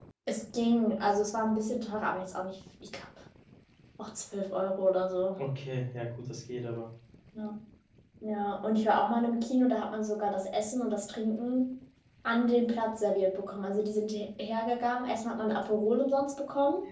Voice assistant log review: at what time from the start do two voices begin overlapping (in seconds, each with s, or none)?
none